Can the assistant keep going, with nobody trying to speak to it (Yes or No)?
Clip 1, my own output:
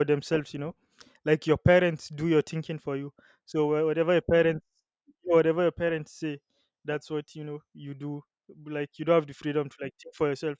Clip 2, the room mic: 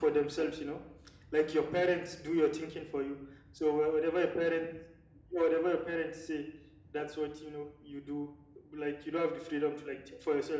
Yes